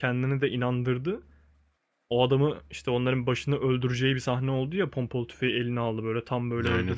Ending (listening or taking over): listening